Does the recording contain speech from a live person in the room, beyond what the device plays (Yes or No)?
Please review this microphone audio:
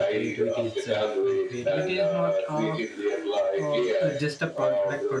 Yes